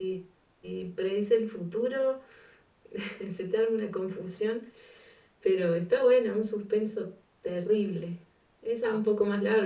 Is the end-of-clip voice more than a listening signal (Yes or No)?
No